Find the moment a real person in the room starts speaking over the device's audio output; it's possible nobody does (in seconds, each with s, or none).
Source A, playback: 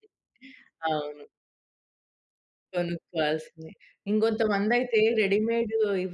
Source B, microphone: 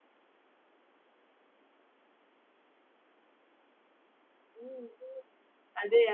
4.6 s